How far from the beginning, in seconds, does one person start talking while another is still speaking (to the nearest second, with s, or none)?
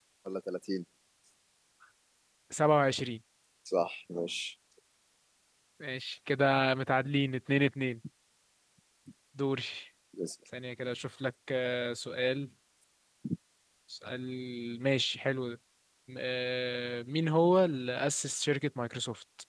none